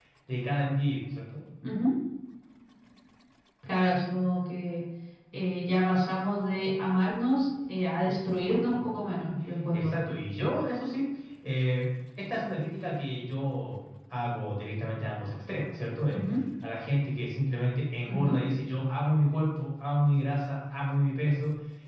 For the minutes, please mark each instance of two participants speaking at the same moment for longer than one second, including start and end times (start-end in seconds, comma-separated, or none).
none